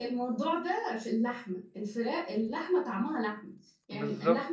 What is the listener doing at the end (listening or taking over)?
listening